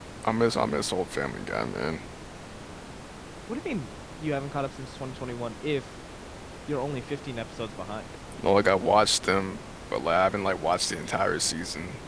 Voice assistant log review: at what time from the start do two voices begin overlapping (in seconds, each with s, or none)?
none